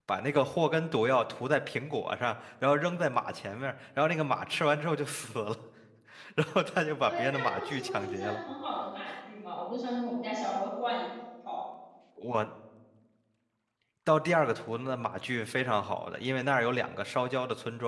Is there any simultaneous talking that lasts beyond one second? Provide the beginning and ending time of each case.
7.0-8.4

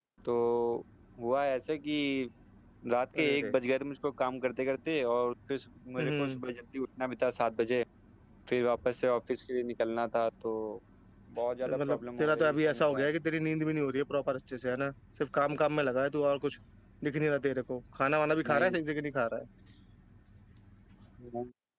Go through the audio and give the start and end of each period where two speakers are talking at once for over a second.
11.7-13.1

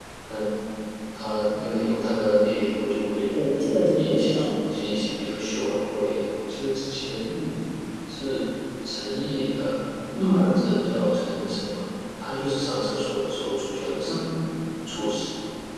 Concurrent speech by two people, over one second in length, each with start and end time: none

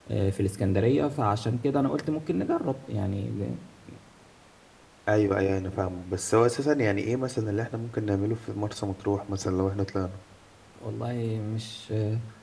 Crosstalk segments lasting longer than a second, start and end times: none

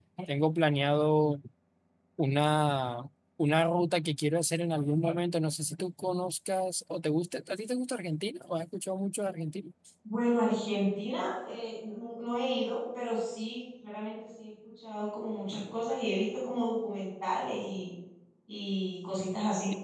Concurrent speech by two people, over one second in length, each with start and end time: none

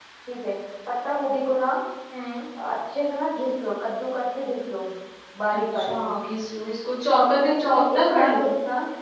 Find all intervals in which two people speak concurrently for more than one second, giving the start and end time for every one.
7.2-8.4

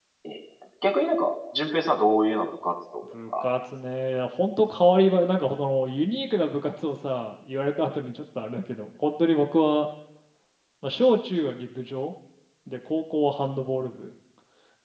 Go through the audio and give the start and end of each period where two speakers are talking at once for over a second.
none

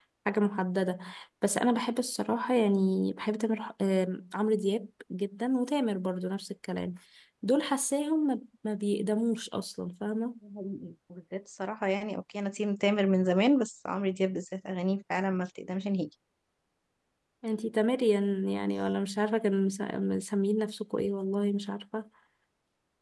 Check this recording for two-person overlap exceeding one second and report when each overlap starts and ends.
none

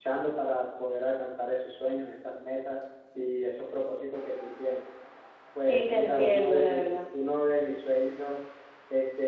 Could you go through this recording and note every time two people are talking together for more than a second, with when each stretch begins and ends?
5.6-6.9

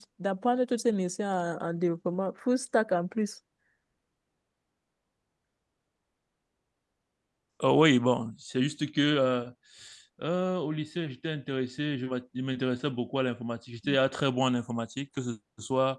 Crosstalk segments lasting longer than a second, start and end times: none

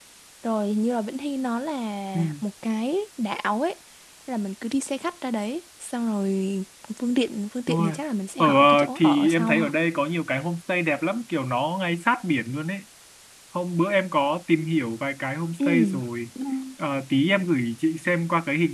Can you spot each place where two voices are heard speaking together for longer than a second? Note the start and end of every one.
8.4-9.7

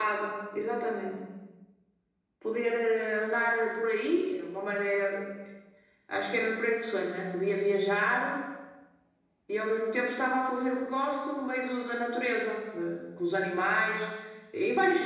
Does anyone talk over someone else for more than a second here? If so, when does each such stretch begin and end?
none

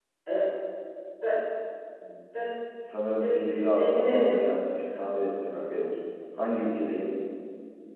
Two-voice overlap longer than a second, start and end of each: 3.2-4.4

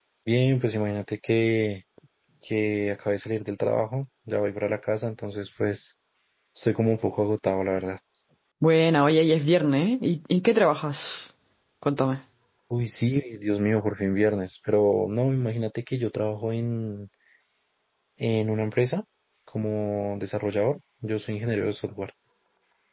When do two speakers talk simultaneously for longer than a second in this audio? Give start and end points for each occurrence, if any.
none

